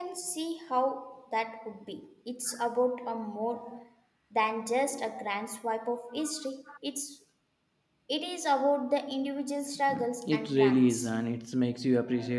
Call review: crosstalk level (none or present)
present